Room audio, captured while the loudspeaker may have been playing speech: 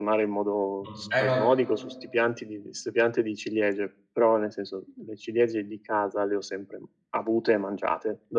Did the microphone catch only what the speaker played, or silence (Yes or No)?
No